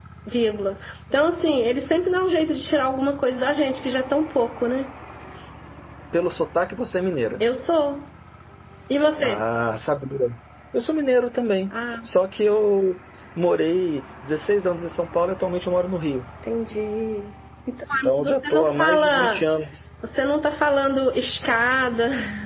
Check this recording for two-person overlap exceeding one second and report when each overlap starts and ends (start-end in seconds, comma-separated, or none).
17.9-19.4